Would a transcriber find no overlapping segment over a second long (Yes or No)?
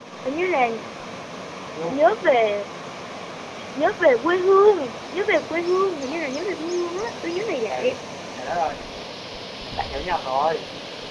Yes